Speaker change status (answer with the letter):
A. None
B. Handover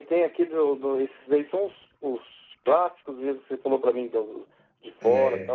A